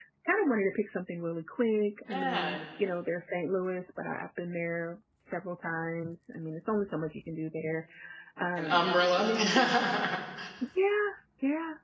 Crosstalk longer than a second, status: present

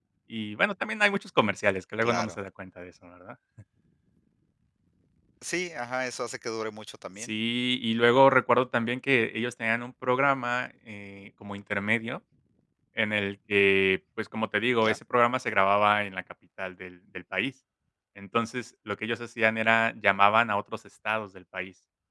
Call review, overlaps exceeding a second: none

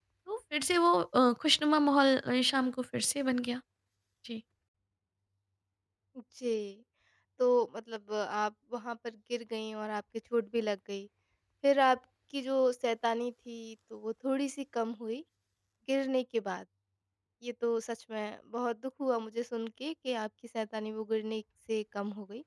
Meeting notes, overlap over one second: none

